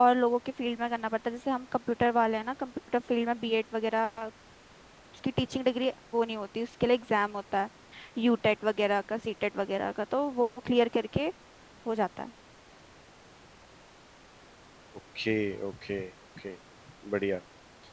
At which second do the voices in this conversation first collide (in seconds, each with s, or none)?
none